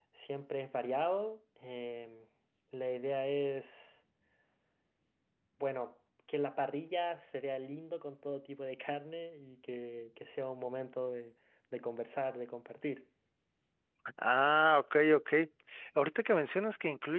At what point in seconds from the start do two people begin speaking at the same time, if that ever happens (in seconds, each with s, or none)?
none